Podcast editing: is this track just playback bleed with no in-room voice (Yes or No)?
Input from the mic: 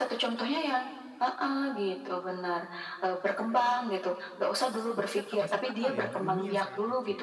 No